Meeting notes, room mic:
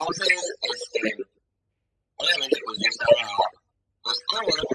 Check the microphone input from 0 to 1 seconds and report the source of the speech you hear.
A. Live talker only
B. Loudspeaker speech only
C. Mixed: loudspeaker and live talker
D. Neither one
B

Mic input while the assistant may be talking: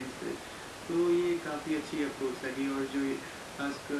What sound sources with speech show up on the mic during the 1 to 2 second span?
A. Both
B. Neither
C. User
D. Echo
D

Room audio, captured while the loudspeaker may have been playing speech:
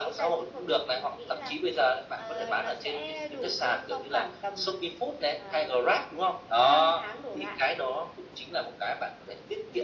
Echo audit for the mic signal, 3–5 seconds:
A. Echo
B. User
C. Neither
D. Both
A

